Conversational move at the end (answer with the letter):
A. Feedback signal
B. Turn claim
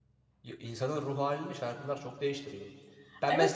B